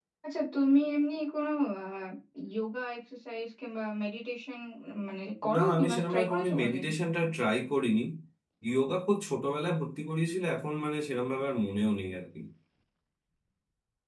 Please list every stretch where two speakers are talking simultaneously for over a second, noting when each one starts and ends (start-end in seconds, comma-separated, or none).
5.5-6.8